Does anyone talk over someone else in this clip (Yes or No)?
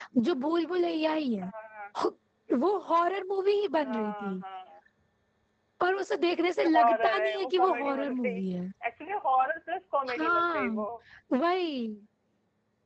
Yes